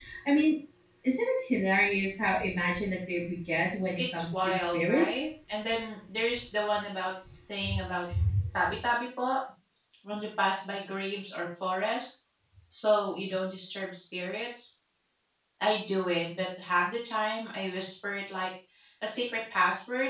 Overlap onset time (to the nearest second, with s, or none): 4 s